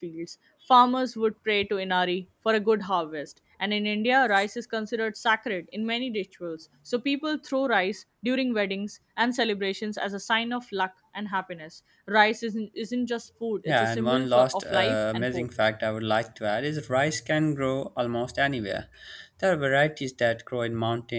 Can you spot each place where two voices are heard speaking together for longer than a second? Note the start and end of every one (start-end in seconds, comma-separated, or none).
13.7-15.5